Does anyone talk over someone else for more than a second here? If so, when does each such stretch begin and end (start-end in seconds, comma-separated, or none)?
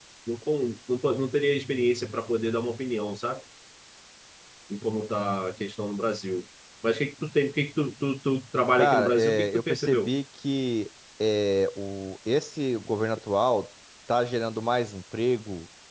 8.8-10.1